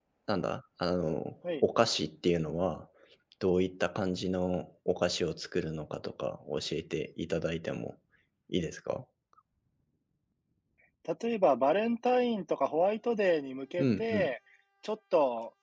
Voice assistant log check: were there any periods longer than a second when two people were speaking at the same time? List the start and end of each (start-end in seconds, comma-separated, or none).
none